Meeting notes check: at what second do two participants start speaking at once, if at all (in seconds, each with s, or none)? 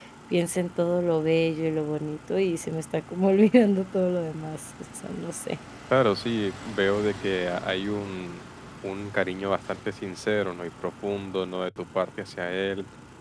none